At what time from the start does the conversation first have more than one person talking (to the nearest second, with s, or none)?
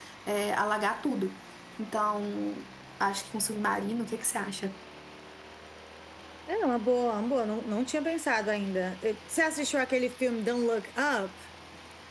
none